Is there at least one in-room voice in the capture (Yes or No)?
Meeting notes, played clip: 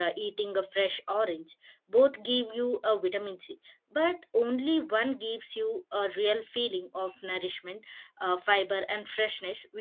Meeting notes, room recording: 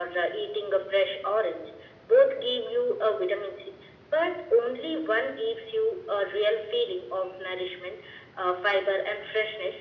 No